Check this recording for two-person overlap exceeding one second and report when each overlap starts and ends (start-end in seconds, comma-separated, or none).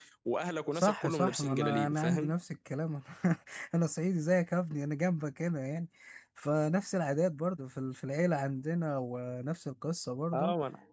0.8-2.3